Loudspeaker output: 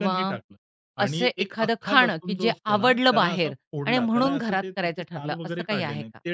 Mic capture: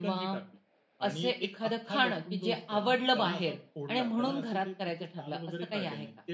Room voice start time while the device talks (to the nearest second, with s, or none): none